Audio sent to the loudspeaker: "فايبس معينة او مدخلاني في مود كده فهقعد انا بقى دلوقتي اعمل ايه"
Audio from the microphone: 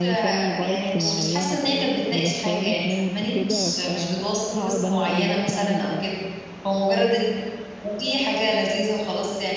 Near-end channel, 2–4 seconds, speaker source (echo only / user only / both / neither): both